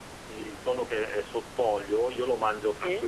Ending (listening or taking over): listening